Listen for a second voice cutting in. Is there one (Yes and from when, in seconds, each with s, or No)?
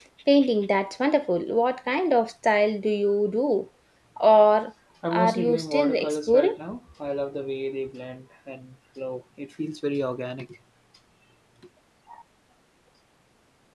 Yes, from 5.0 s